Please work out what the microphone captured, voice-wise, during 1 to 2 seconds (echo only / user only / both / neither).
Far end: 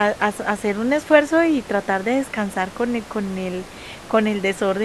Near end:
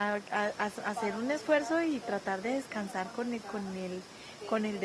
both